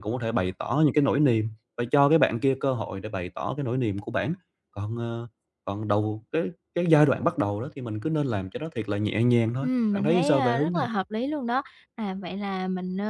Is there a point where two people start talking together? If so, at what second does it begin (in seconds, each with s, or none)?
9.6 s